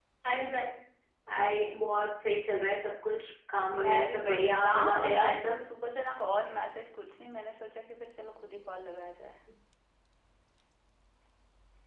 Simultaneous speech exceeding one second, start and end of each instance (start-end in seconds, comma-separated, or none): 3.8-5.6